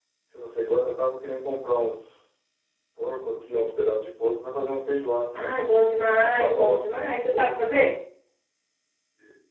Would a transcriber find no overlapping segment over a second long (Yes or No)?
No